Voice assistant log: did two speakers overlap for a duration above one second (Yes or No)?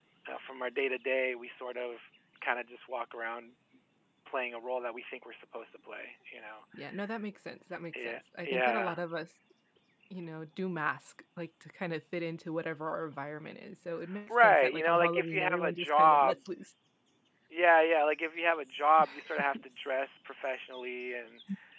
Yes